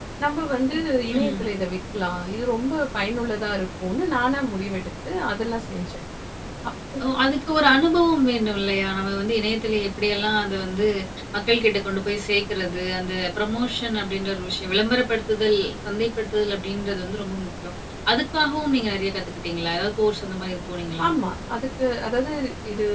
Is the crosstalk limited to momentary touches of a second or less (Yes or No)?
Yes